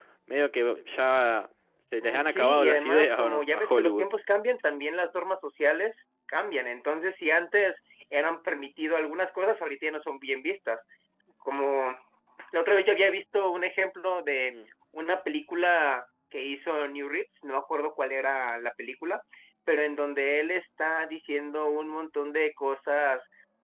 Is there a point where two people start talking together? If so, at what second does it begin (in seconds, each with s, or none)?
2.0 s